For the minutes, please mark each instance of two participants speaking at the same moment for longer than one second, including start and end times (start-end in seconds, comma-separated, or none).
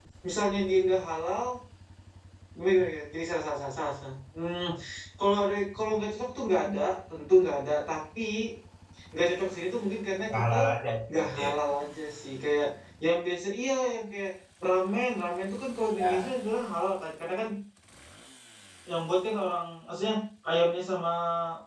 none